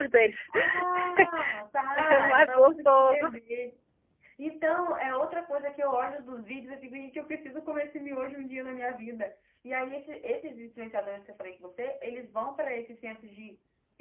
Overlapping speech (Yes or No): Yes